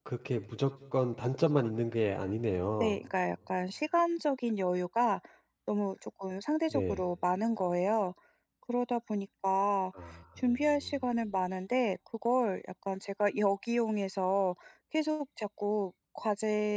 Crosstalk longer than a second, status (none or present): none